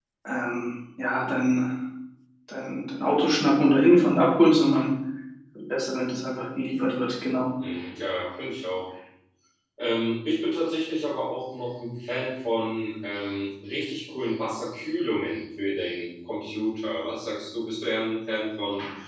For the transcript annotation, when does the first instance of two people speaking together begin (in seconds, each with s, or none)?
none